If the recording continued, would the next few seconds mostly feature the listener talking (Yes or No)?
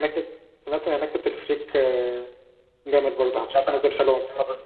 Yes